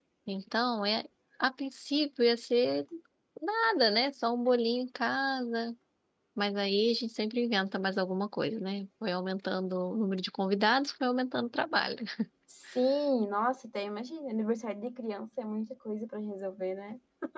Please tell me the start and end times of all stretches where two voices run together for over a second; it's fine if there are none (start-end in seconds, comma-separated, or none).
none